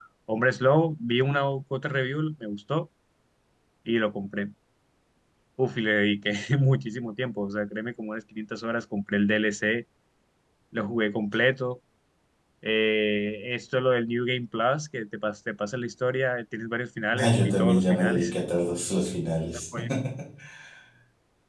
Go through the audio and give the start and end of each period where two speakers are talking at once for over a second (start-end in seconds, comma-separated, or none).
17.1-18.3